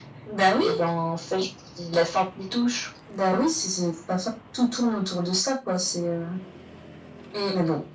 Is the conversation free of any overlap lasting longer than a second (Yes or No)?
Yes